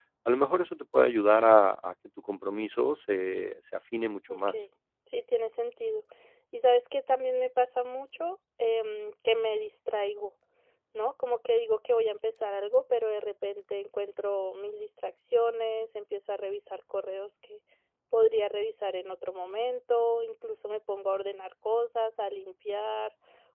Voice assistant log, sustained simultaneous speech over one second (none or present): none